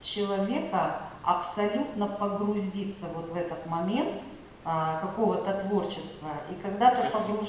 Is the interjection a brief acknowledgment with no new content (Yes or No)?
Yes